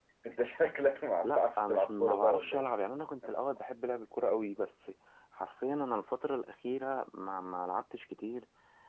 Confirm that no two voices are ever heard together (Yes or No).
No